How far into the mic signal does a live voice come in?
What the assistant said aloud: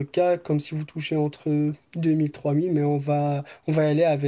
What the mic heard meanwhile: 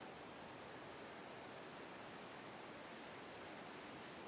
none

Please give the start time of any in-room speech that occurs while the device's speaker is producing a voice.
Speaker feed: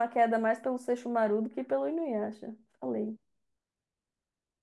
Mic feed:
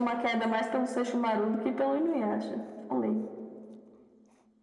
none

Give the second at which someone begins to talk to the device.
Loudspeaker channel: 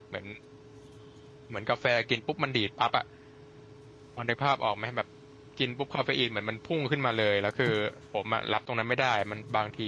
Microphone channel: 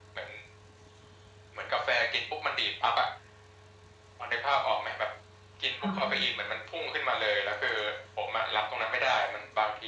5.8 s

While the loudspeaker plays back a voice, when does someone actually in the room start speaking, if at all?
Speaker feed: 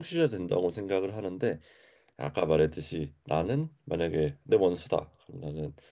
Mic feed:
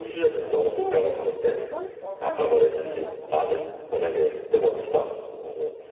0.4 s

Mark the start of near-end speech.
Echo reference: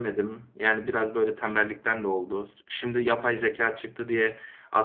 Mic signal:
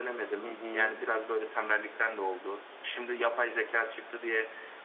0.4 s

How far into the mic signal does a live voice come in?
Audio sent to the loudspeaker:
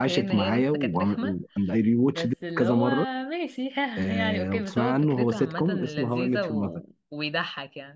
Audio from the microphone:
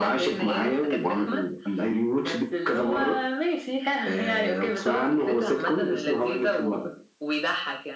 none

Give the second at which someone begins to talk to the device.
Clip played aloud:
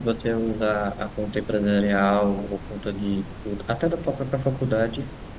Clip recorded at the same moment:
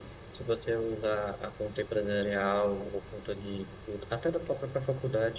none

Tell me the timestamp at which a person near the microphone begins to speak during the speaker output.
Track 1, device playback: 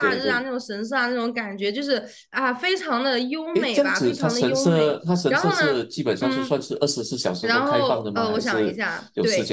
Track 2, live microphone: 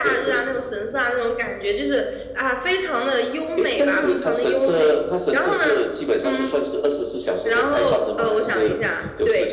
3.9 s

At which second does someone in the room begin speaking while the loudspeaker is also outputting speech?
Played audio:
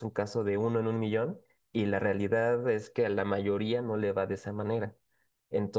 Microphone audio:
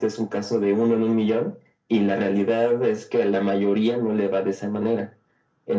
none

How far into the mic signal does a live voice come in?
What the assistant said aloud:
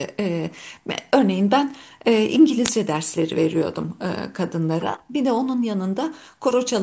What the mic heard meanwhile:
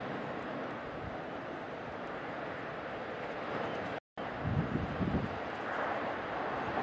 none

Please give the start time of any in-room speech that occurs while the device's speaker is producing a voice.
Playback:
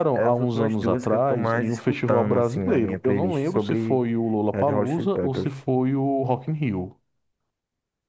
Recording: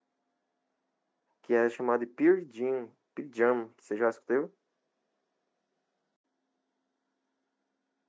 1.4 s

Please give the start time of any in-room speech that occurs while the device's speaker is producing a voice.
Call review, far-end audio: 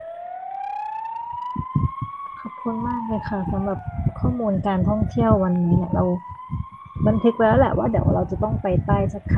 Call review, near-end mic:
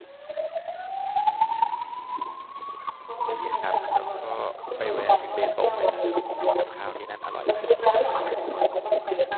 3.3 s

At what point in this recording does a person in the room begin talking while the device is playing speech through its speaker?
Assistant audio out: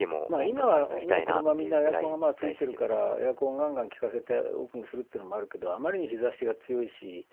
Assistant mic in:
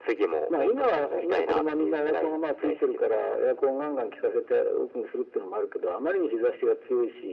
none

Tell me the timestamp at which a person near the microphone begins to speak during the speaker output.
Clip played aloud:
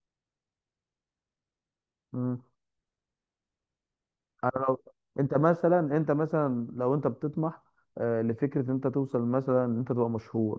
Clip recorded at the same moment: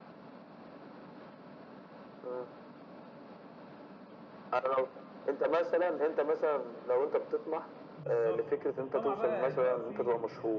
7.9 s

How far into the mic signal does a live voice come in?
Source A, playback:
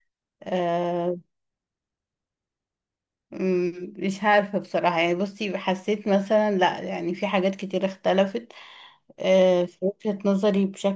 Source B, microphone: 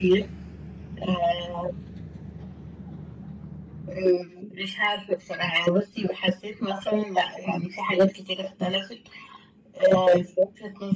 none

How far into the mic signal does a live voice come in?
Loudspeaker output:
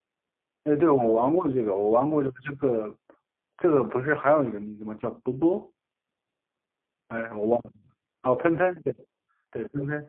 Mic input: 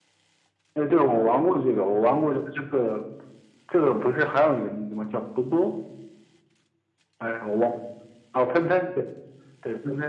none

